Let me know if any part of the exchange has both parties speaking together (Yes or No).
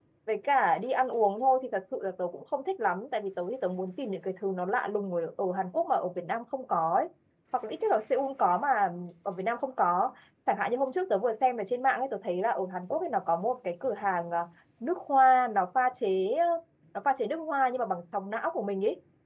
No